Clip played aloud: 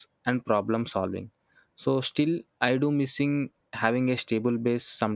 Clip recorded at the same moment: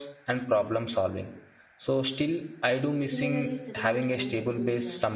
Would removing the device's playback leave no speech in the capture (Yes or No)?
No